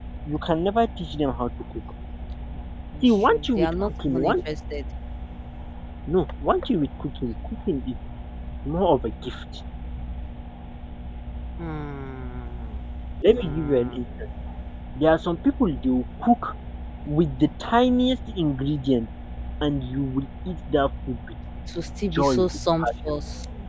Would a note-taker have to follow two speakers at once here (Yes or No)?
Yes